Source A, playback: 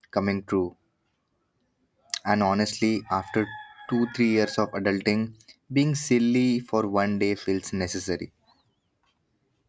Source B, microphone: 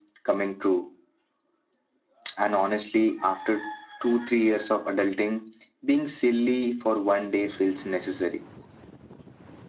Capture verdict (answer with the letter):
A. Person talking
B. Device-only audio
B